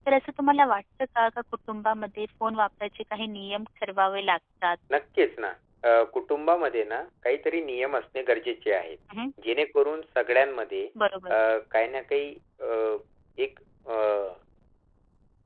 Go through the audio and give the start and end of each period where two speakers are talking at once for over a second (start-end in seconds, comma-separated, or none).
none